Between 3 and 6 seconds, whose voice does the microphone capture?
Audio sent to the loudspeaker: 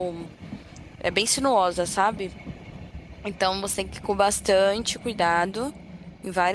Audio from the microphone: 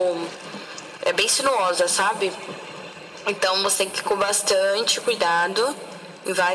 echo only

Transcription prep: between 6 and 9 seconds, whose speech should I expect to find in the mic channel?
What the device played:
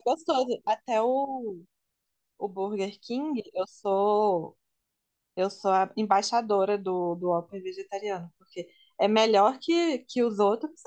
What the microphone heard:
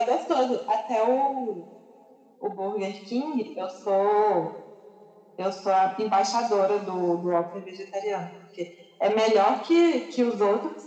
echo only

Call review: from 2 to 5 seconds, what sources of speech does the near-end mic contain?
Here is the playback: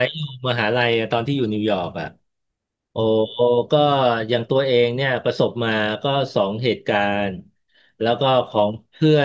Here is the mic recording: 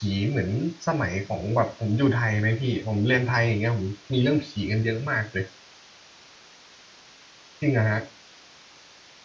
user only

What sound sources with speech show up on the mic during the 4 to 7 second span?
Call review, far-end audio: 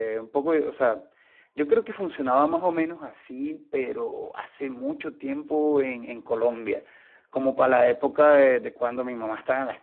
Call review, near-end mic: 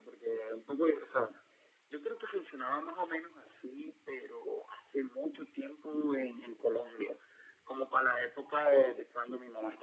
echo only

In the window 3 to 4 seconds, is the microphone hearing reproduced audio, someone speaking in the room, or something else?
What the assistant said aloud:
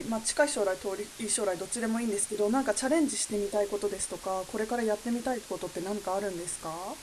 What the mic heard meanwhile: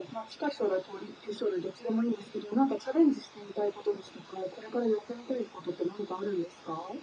echo only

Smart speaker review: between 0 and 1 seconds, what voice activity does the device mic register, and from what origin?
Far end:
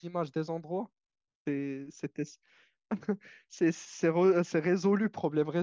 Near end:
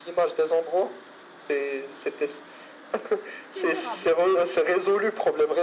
echo only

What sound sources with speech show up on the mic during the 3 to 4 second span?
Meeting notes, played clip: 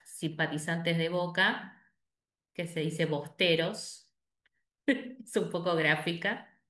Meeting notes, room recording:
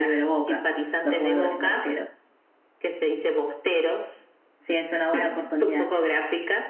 echo only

